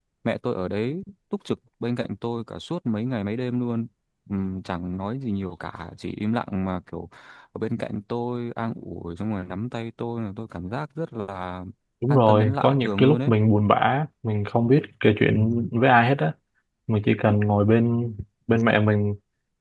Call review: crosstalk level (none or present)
present